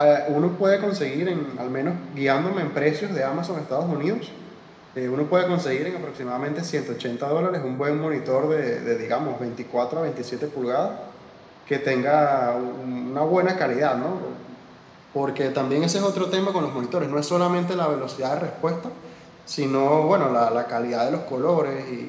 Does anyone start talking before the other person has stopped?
No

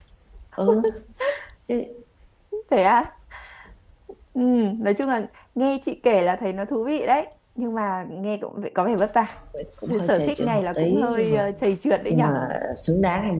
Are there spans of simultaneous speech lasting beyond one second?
Yes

